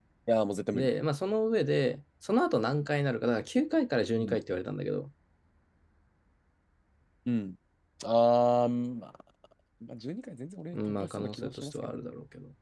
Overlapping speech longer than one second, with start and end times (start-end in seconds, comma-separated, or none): 10.7-12.0